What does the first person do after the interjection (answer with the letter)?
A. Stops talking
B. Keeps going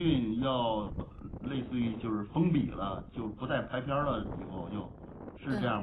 A